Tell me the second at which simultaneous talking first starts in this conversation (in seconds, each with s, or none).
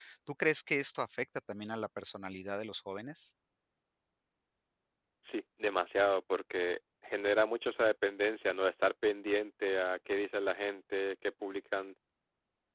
none